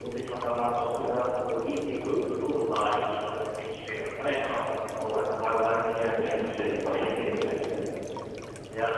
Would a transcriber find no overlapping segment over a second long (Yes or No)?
No